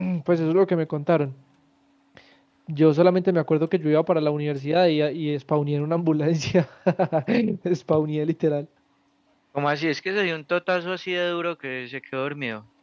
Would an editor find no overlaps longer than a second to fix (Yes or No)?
Yes